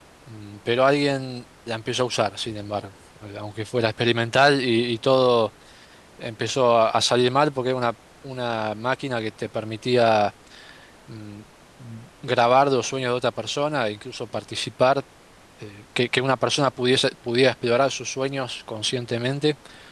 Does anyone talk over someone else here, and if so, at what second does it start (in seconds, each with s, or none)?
none